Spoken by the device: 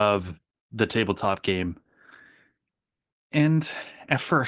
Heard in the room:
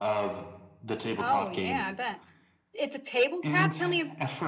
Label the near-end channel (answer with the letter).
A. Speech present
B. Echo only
A